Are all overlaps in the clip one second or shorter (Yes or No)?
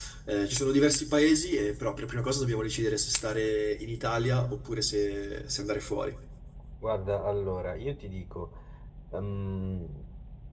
Yes